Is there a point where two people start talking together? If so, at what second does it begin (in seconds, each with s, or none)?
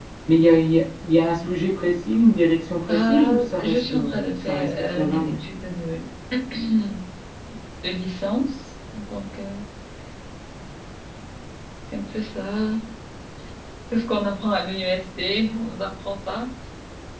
2.9 s